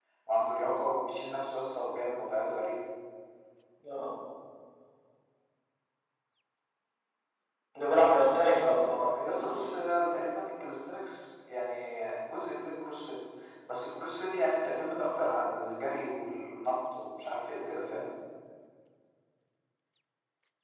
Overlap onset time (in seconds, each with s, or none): 8.3 s